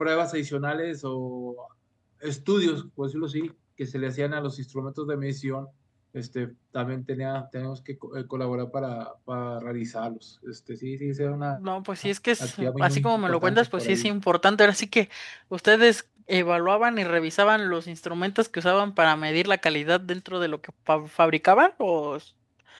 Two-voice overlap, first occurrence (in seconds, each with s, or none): 12.4 s